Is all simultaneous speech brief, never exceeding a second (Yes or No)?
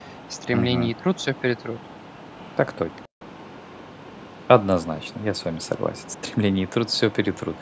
Yes